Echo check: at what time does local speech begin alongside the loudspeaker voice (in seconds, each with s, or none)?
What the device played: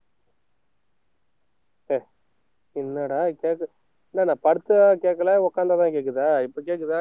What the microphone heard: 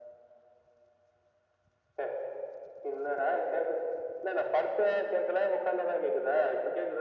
none